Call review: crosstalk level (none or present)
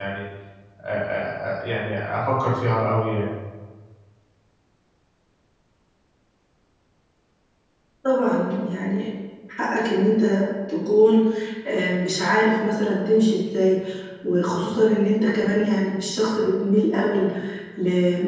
none